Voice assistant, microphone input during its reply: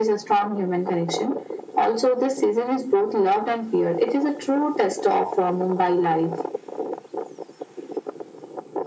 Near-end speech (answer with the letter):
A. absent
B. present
A